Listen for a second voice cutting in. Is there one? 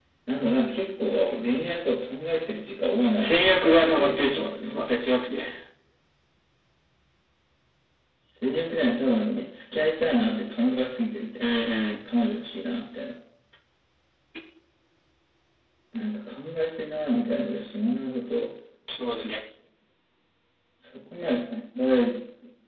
Yes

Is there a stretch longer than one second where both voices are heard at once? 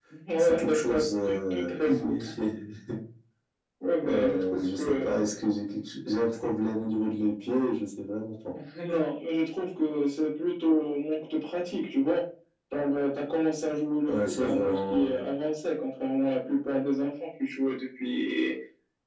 Yes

